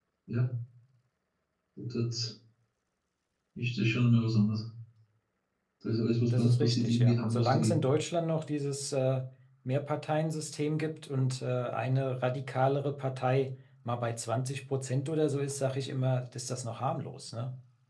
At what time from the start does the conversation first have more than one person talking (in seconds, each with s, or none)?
6.3 s